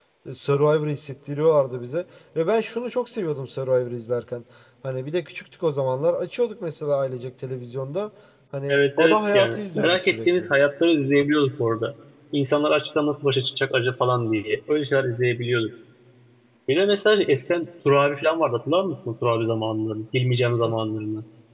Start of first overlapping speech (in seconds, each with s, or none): 8.7 s